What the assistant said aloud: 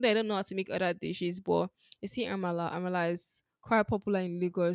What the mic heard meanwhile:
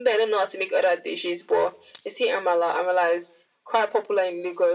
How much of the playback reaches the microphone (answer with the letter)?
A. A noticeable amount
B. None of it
A